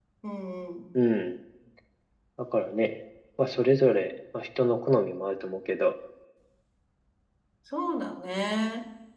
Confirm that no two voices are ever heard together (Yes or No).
Yes